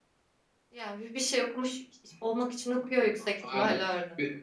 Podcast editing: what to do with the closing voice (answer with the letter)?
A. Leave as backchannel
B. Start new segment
B